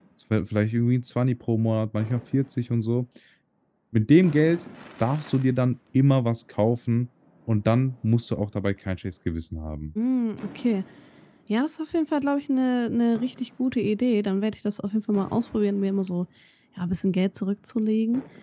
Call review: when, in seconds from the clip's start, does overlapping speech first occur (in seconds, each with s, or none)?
none